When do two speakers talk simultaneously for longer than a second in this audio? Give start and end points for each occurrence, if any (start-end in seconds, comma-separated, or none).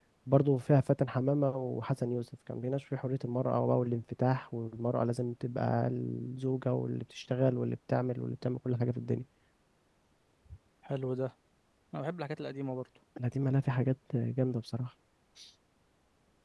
none